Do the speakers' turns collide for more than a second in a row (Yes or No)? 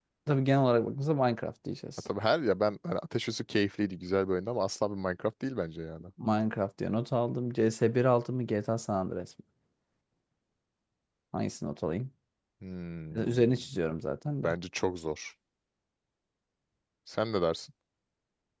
No